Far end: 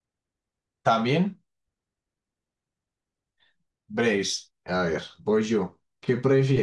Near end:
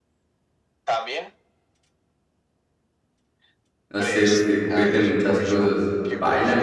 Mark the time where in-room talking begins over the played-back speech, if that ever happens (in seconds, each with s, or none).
3.9 s